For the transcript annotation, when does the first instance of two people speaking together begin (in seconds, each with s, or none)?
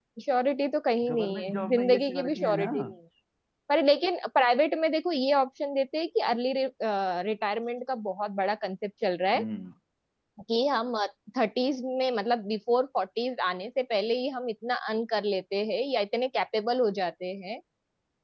1.1 s